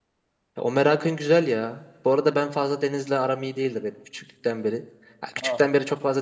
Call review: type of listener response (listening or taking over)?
listening